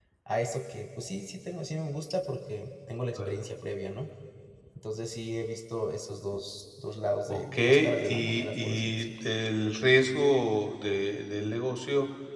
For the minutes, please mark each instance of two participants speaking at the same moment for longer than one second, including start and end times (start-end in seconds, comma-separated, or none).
7.3-9.1